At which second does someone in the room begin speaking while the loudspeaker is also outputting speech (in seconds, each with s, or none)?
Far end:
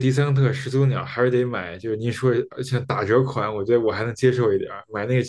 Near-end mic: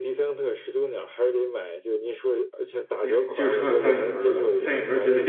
3.0 s